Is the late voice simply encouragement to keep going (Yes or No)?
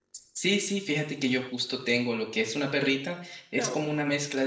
Yes